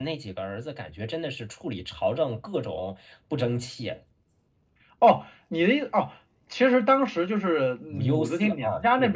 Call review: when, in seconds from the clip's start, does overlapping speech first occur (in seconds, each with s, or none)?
7.9 s